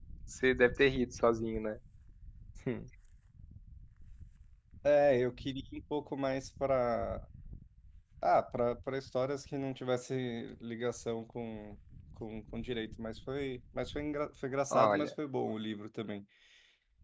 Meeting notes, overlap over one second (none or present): none